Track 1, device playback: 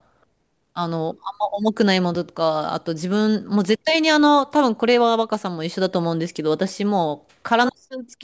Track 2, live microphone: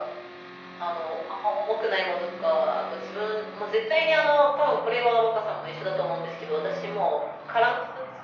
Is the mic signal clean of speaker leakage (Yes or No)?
No